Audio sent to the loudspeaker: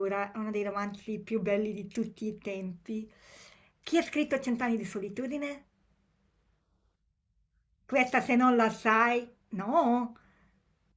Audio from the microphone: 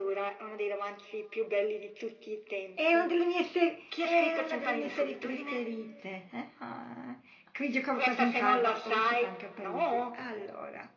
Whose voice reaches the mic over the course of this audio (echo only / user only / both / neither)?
both